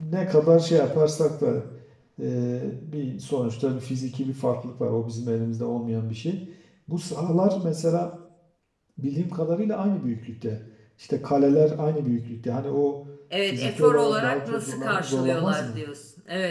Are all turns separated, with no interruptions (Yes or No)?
No